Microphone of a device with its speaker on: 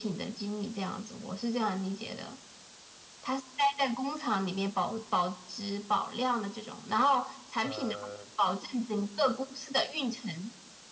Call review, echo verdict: present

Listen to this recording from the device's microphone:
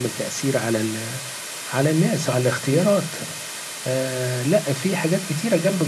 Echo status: present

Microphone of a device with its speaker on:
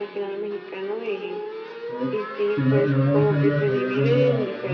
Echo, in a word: present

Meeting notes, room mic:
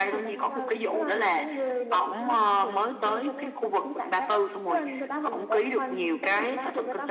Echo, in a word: present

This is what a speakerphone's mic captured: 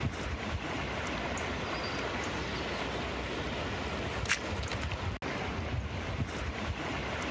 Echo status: none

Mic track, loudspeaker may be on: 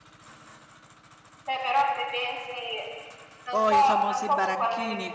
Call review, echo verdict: present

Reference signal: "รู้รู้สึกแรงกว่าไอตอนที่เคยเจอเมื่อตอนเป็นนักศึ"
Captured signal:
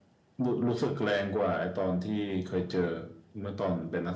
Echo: present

